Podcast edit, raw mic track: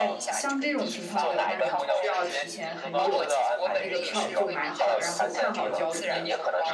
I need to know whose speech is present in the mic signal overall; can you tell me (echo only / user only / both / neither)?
both